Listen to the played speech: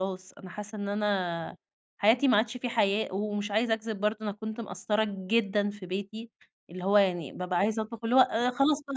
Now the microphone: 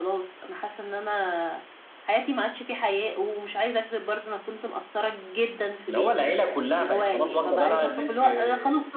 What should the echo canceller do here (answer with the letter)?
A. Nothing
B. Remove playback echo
B